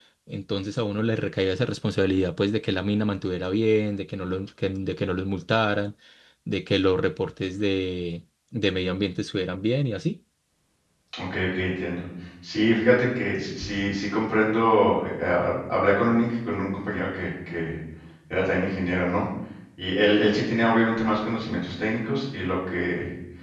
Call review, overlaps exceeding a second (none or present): none